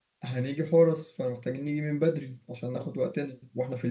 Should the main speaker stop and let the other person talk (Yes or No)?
No